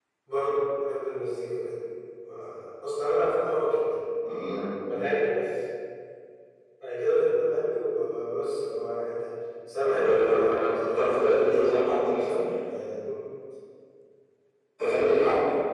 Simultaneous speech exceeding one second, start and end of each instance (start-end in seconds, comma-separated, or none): 9.8-11.7